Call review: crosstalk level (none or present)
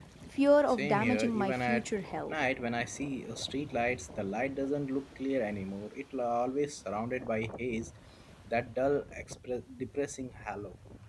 present